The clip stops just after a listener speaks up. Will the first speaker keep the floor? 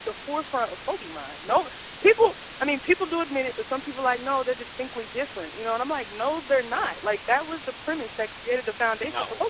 Yes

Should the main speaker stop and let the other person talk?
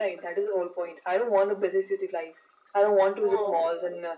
No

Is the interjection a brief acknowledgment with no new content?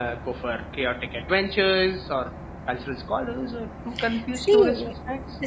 No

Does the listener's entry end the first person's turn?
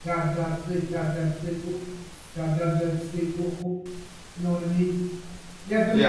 No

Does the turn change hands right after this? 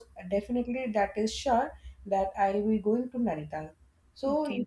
No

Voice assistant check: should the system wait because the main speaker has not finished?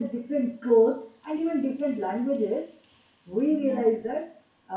Yes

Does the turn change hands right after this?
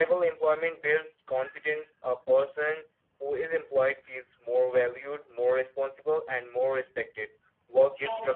No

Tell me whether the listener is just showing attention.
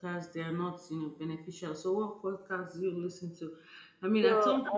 Yes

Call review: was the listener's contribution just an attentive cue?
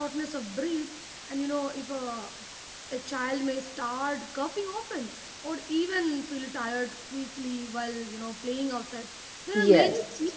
Yes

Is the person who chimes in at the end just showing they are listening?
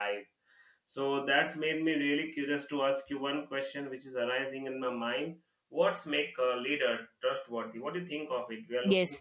No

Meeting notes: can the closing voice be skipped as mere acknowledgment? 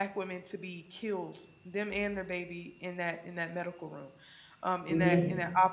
Yes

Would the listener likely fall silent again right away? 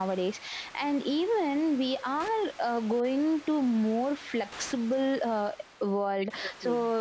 Yes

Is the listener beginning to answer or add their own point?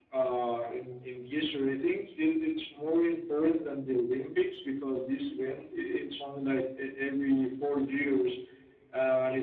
No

